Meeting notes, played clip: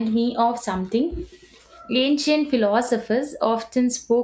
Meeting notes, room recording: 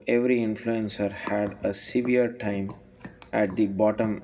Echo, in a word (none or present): none